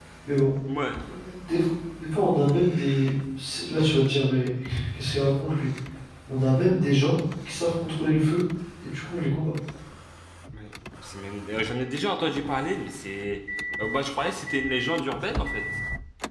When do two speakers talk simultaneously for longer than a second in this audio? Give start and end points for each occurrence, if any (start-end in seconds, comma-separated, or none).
none